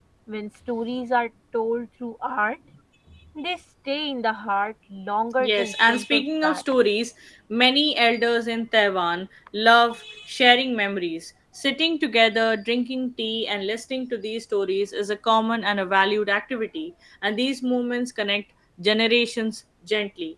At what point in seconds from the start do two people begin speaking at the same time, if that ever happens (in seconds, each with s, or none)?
5.4 s